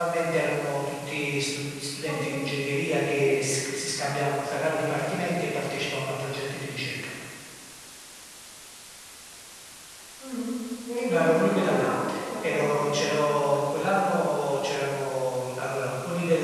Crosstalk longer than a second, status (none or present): present